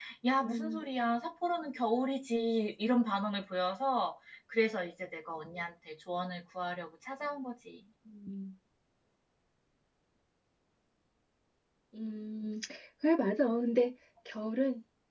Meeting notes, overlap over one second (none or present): none